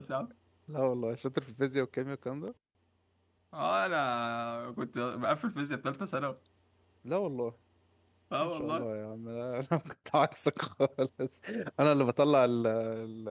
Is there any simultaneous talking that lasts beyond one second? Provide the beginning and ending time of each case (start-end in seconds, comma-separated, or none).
none